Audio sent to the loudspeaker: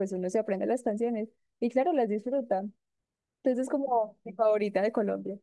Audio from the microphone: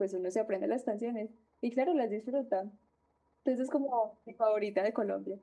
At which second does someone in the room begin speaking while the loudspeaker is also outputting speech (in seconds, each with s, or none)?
none